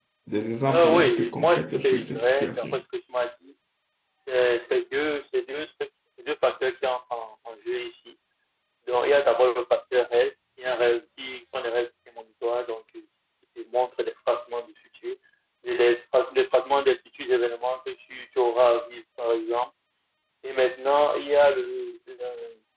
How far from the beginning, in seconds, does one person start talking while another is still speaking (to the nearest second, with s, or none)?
1 s